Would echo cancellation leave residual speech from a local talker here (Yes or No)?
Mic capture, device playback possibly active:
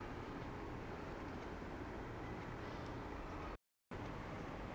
No